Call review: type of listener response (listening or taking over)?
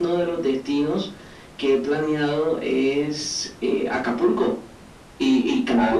listening